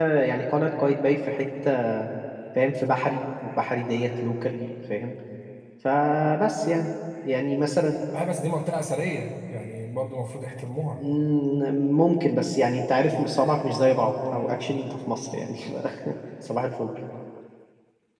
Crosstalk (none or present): none